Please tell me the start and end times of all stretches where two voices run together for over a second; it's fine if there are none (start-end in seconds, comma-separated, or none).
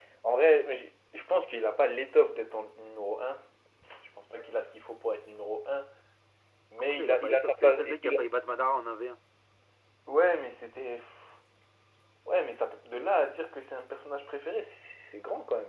6.8-8.2